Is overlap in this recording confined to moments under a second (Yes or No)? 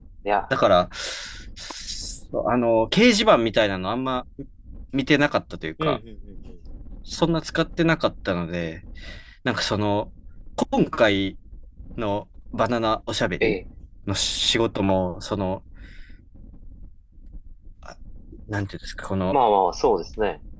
Yes